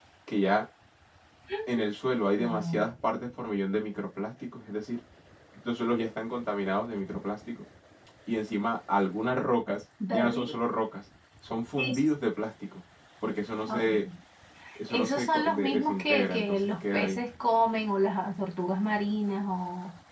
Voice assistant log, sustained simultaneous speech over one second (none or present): present